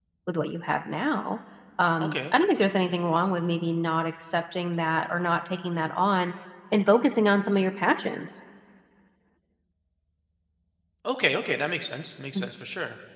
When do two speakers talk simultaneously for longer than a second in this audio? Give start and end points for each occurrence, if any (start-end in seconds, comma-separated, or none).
none